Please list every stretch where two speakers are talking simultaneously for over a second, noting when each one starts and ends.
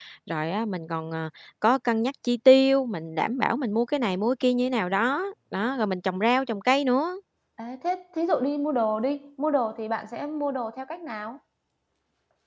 none

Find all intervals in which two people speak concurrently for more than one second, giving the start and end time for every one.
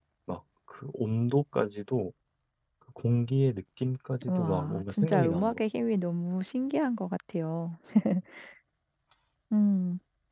4.3-5.6

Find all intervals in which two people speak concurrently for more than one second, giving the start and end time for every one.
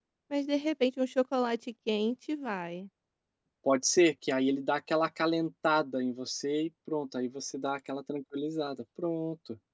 none

